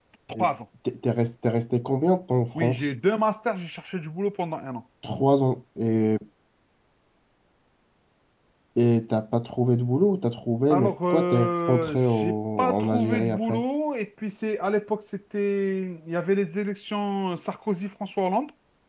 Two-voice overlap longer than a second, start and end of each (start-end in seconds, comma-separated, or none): 10.7-13.6